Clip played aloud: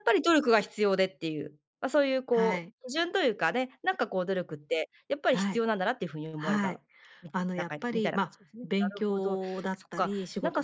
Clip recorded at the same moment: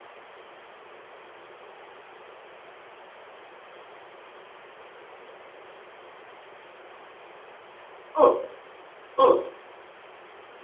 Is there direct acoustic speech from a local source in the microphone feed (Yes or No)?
Yes